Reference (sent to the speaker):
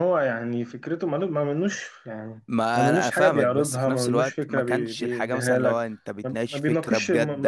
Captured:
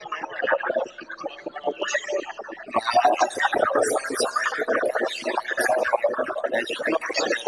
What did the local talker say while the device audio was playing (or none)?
none